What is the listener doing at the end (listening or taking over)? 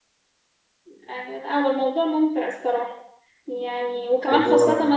listening